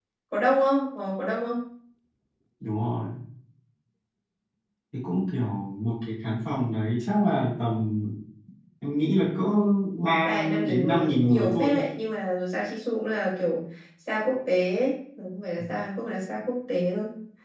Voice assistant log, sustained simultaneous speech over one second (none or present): present